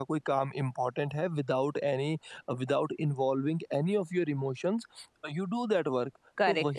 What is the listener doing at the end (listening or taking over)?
listening